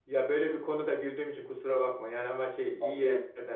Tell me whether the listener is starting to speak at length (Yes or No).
No